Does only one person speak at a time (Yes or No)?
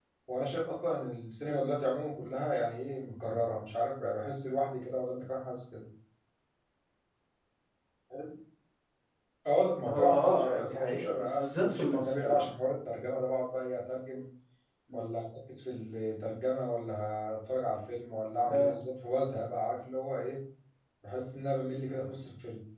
No